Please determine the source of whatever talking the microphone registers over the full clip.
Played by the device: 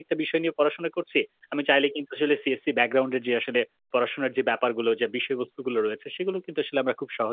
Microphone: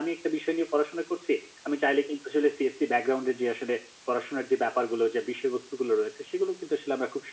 echo only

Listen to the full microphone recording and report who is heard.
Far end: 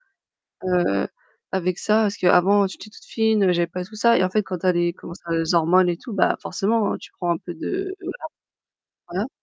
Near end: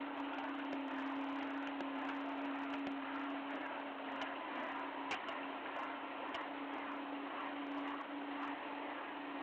neither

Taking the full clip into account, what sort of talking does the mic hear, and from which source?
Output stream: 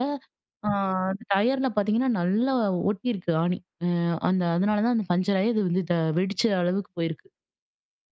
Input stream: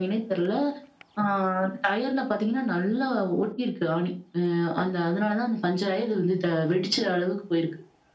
echo only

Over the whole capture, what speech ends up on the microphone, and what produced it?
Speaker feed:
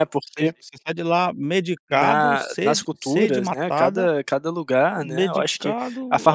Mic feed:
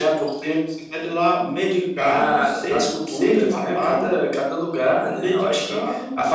echo only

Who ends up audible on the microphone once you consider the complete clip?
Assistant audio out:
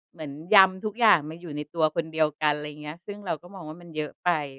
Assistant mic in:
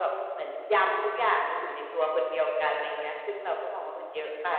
echo only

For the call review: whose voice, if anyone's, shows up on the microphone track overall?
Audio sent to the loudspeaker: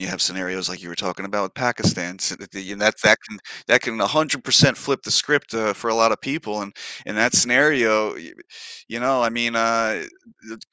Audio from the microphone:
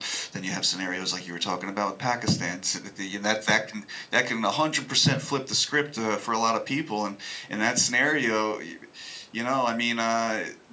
echo only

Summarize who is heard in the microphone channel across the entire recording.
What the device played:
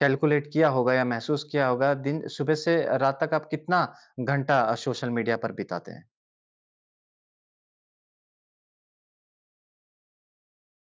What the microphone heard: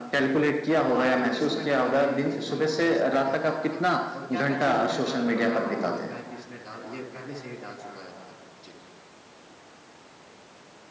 both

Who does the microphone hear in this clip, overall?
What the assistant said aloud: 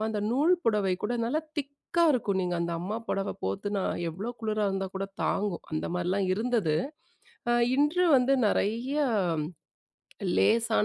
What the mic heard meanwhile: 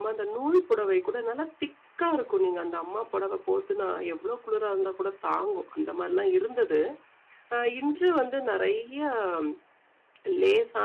echo only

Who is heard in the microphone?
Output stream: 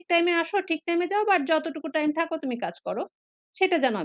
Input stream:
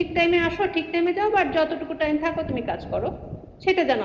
echo only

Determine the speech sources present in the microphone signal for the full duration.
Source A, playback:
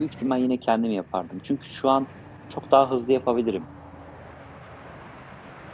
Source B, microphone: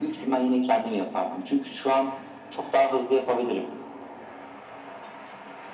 echo only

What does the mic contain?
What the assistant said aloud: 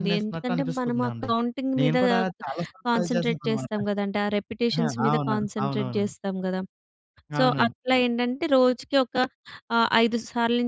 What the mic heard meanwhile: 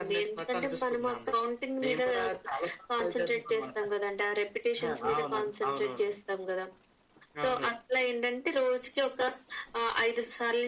echo only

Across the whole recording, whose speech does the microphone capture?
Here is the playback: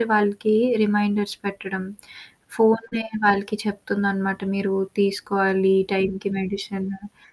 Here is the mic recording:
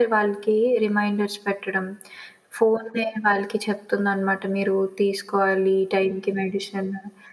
echo only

